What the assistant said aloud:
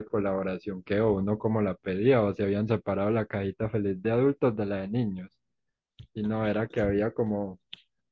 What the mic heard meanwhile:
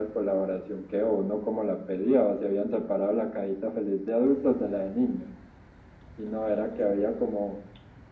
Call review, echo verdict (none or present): present